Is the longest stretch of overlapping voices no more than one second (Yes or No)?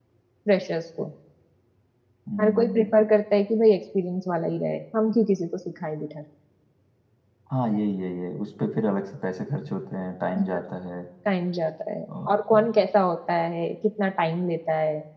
Yes